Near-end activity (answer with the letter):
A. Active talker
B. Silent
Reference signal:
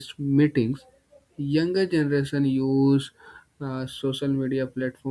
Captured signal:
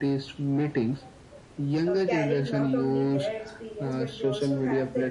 A